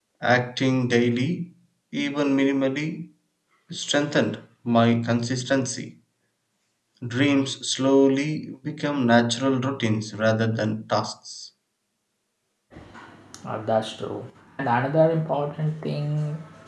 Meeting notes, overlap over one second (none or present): none